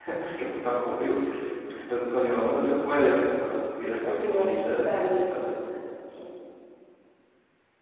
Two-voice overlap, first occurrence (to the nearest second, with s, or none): 4 s